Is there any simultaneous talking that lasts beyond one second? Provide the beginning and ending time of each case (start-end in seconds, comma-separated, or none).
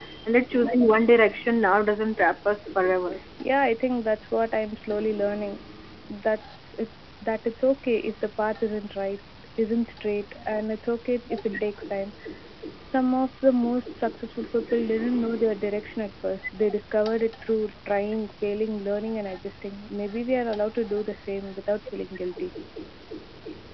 none